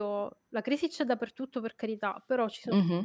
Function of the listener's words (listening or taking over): listening